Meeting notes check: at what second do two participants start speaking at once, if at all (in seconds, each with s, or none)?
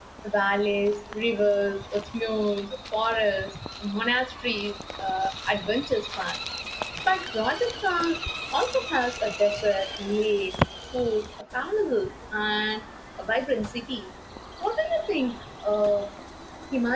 none